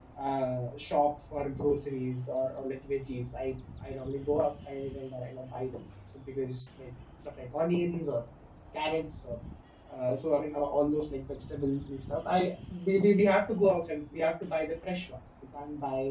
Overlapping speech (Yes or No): No